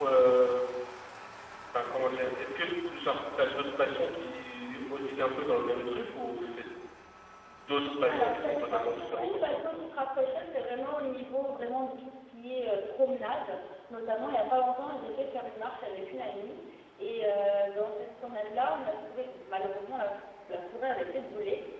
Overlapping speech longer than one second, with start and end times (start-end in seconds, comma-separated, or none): 8.1-9.6